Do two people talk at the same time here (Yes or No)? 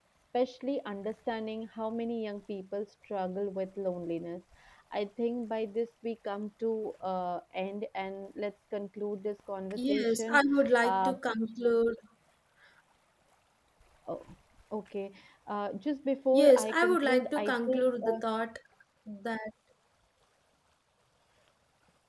Yes